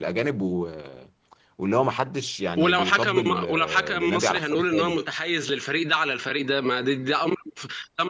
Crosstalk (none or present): present